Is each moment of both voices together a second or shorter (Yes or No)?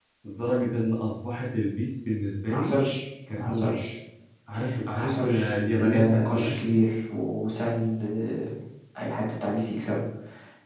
No